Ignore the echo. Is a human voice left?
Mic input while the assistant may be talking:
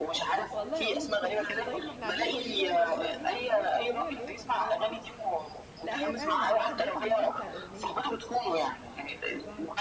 Yes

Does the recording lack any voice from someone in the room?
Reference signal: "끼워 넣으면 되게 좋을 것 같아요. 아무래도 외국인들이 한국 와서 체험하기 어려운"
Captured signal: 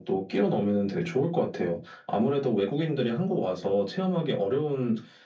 Yes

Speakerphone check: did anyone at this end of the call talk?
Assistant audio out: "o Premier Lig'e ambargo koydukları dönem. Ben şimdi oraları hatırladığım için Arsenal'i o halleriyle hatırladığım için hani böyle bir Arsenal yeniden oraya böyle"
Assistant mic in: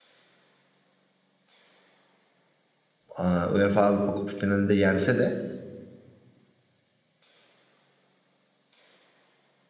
Yes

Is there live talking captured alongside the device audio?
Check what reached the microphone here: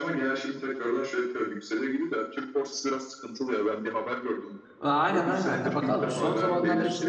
Yes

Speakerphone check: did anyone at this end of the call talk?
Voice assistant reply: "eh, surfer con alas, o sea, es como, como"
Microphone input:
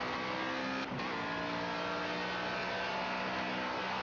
No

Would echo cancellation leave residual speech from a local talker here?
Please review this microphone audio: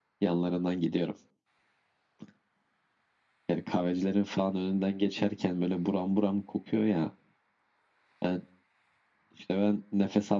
No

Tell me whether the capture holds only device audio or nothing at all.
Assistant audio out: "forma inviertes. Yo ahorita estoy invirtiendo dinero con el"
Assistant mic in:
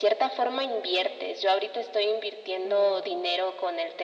No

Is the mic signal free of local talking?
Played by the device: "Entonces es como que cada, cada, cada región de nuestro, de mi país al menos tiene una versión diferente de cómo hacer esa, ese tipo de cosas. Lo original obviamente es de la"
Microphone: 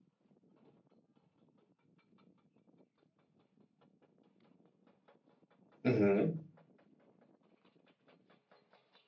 No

